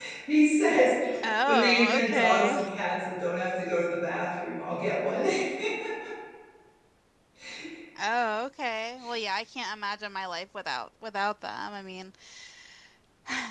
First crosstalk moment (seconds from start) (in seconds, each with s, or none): 1.5 s